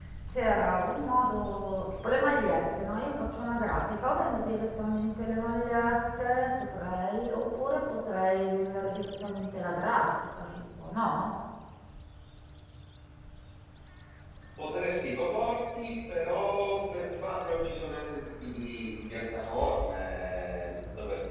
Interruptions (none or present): none